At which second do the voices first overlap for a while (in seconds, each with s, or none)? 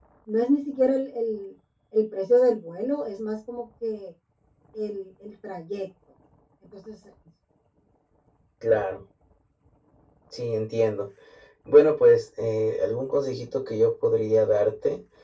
none